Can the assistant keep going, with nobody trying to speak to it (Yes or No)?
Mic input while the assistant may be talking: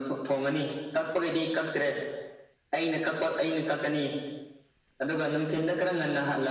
Yes